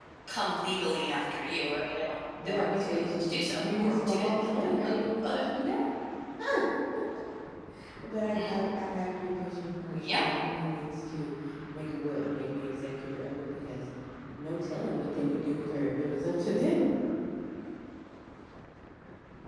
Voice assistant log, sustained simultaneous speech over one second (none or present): present